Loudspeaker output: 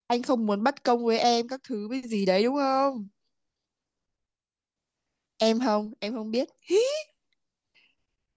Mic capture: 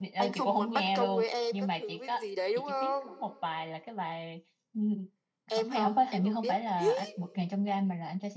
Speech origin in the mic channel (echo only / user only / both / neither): both